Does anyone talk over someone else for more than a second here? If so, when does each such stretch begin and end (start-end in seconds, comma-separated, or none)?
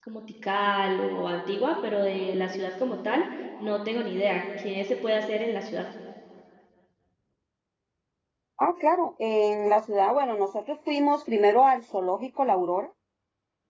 none